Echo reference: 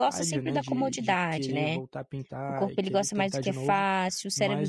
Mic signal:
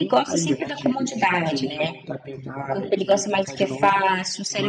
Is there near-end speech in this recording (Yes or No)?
No